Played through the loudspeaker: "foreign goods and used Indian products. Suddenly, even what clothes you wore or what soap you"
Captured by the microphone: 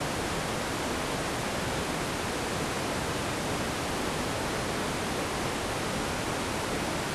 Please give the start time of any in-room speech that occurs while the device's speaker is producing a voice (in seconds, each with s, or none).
none